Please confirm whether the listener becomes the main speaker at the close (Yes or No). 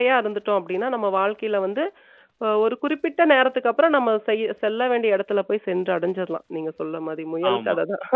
Yes